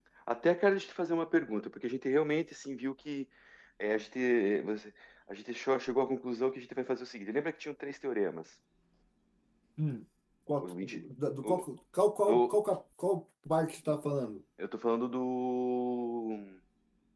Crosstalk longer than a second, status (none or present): none